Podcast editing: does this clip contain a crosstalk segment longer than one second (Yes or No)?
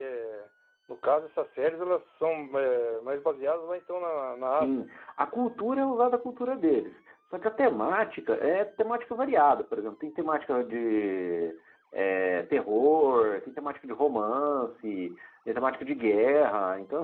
No